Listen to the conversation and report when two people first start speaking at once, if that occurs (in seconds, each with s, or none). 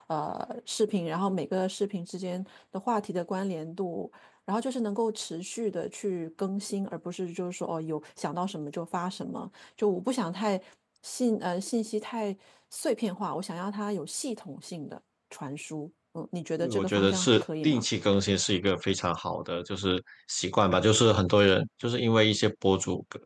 16.6 s